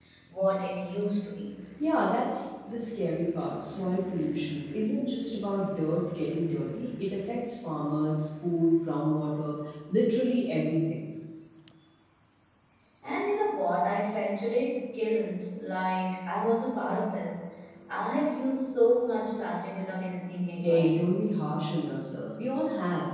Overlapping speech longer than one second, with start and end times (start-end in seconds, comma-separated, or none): none